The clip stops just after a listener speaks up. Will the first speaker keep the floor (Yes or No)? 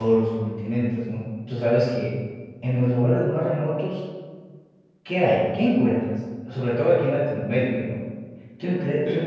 Yes